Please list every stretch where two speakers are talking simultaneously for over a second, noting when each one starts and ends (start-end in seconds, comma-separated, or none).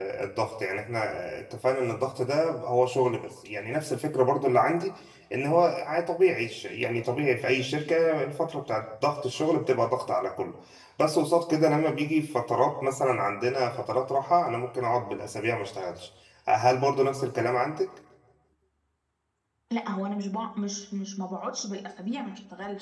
none